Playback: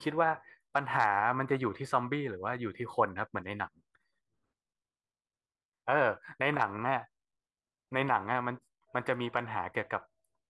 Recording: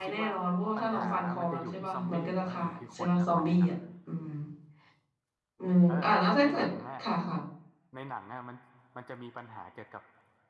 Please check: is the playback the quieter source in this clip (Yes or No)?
Yes